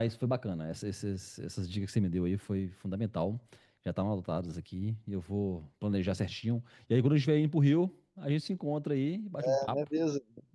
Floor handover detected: Yes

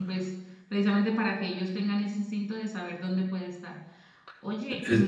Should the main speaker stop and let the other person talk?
No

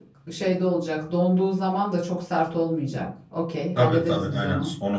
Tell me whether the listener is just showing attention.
No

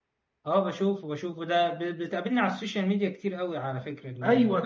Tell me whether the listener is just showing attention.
No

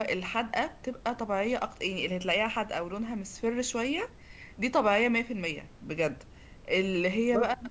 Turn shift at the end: No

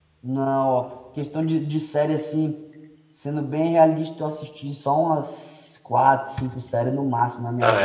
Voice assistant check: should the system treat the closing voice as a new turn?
No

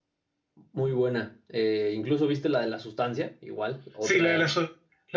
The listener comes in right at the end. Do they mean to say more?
Yes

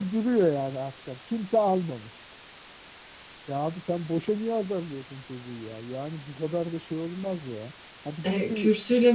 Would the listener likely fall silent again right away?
No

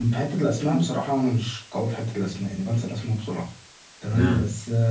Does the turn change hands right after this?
No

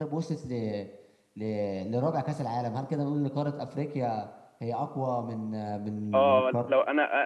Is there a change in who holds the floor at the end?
Yes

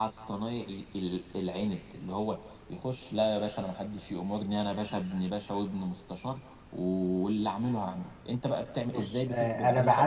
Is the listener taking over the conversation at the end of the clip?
Yes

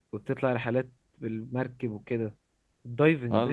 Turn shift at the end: Yes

